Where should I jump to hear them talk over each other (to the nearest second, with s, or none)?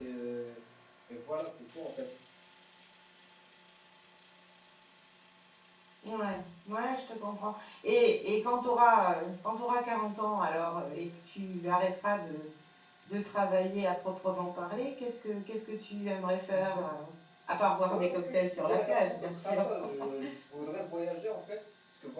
18 s